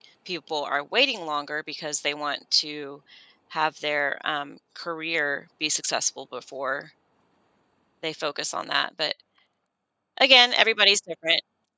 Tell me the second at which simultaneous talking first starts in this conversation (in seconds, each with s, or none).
none